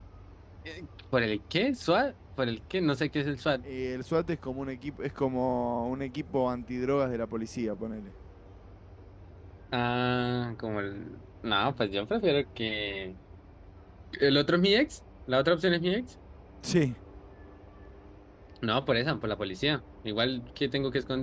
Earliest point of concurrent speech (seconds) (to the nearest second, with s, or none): none